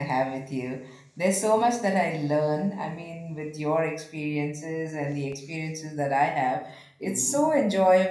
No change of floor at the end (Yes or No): Yes